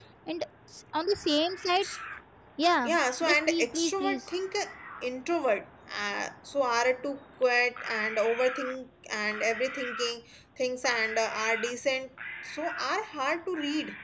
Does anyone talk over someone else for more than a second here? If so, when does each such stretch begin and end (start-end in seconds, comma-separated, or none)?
2.8-4.2